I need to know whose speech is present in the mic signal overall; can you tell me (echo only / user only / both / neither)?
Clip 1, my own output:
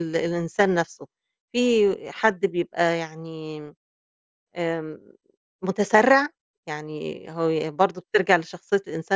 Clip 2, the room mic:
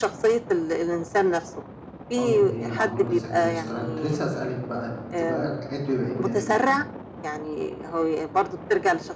both